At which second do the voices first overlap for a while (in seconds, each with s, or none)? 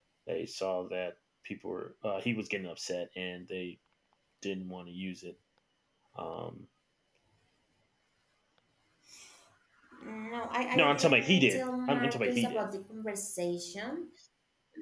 10.7 s